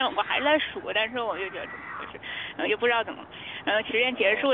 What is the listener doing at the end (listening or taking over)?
listening